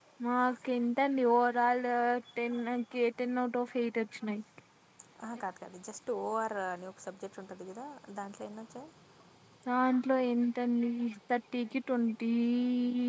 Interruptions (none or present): none